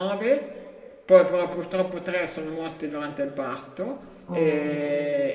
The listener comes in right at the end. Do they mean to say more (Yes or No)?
No